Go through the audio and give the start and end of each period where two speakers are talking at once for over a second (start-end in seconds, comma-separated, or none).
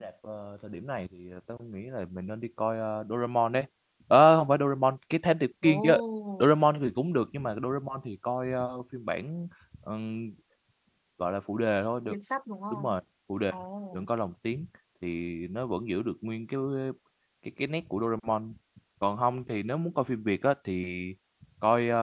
none